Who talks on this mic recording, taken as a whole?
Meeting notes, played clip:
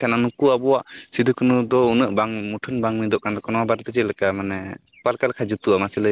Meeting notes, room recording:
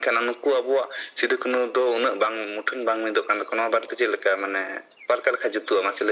echo only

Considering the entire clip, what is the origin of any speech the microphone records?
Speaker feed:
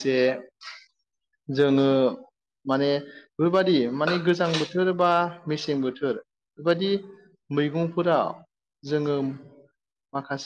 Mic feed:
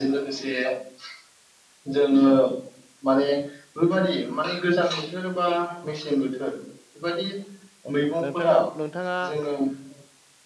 both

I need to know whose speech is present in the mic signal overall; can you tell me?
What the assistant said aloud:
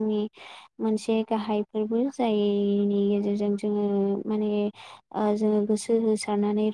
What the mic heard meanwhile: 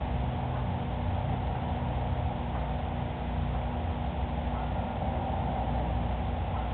neither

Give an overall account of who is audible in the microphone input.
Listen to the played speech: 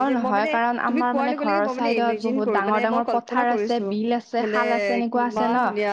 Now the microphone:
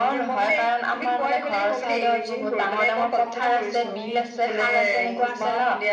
both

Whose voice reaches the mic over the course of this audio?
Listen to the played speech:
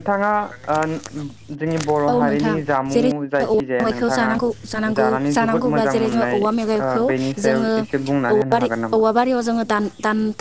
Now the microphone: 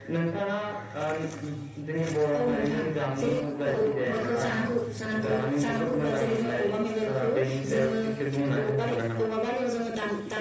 both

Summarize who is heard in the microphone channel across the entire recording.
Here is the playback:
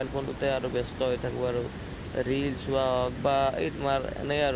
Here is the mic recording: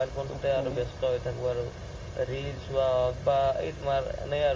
both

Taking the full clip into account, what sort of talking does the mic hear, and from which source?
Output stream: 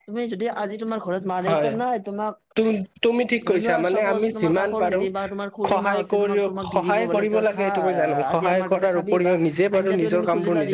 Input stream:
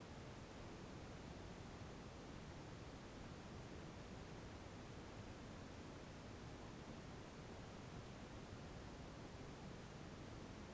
neither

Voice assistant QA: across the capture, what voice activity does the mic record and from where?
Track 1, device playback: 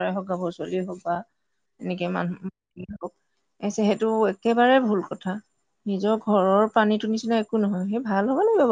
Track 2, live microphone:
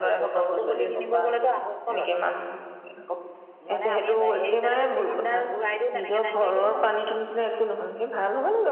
both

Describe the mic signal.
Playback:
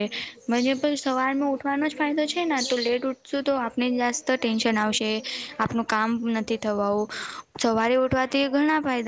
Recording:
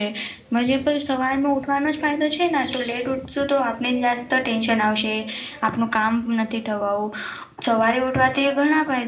echo only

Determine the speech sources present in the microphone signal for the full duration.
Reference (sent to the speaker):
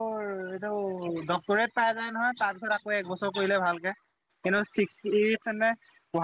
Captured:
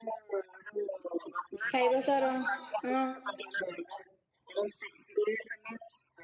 both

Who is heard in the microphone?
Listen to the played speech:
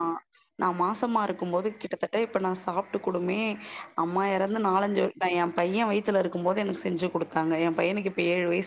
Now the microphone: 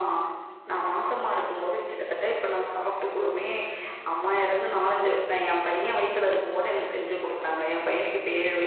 both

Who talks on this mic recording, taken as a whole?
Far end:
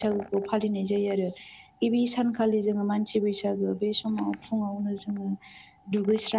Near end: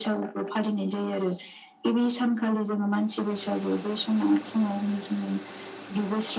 echo only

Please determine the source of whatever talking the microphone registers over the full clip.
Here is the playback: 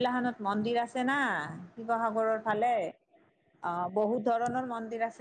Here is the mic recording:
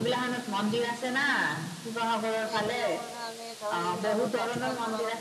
both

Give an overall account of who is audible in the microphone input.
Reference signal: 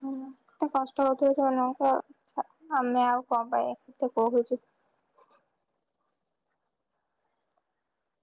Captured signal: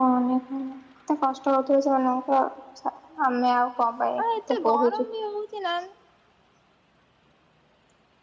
both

